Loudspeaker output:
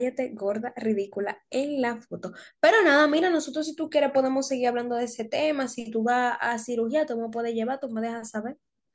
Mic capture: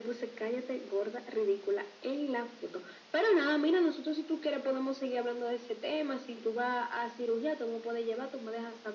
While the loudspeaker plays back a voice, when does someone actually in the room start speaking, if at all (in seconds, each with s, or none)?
none